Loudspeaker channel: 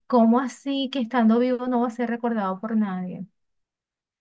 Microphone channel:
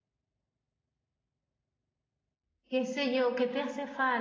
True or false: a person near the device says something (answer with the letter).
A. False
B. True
B